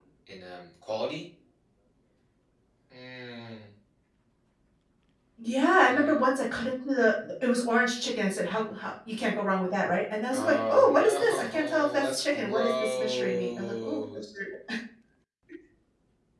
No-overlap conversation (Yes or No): No